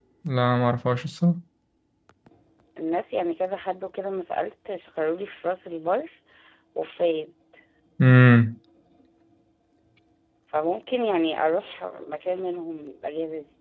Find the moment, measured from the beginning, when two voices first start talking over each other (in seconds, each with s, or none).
none